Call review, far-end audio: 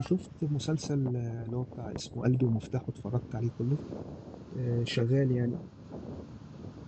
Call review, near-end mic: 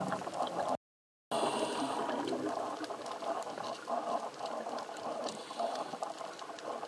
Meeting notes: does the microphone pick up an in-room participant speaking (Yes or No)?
No